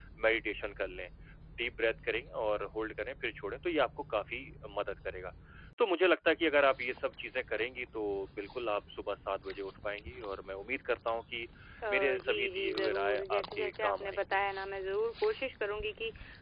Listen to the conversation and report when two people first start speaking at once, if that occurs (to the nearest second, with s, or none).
12 s